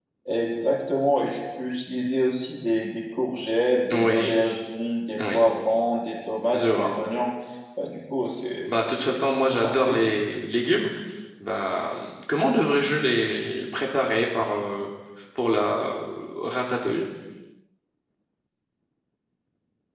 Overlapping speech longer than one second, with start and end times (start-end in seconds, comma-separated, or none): 8.7-10.0